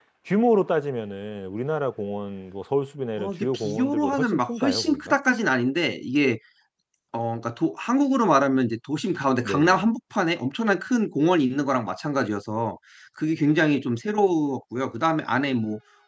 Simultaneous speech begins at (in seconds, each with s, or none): 3.2 s